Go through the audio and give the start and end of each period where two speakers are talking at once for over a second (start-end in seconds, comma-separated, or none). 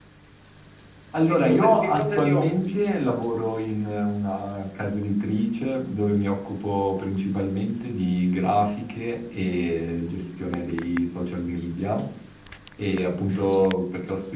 1.3-2.7